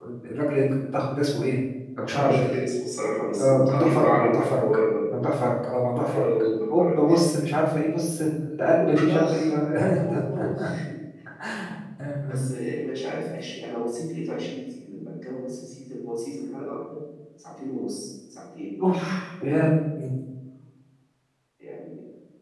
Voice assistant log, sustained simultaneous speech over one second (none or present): present